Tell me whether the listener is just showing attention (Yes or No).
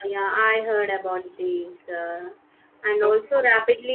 Yes